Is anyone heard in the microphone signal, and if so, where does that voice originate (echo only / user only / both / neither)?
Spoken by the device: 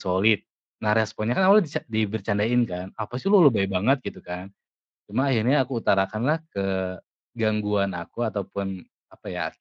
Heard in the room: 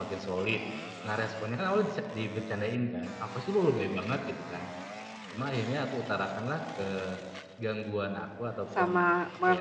both